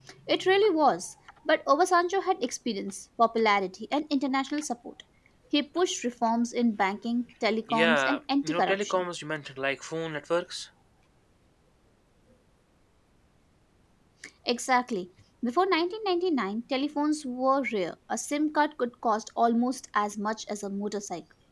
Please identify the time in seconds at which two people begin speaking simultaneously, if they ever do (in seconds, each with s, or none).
7.7 s